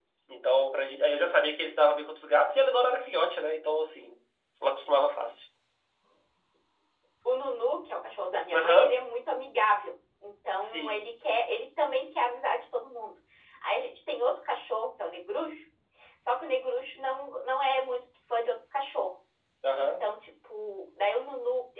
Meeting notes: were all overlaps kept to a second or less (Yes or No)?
Yes